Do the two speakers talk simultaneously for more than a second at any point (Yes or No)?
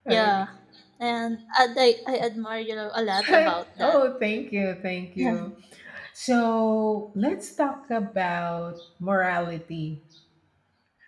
No